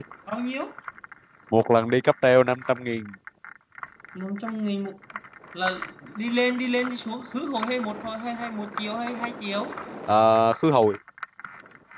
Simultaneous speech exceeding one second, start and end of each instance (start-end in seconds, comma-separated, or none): none